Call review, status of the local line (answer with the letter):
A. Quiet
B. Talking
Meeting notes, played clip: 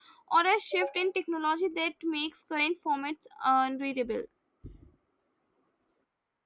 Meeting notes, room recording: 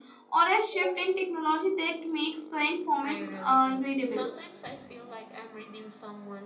B